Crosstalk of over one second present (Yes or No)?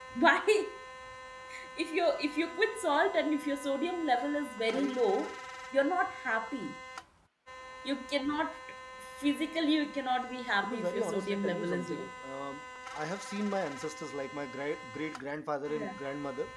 Yes